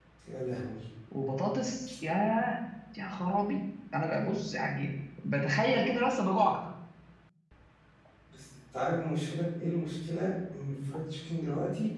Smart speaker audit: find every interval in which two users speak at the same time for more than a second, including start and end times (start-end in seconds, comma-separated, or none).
none